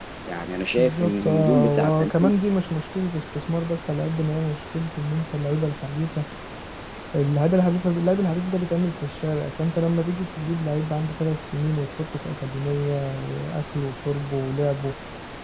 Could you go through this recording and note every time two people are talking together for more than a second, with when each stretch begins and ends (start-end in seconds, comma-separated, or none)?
0.8-2.1